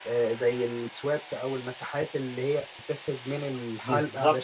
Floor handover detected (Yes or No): Yes